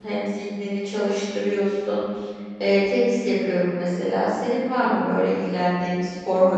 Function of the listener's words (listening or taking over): taking over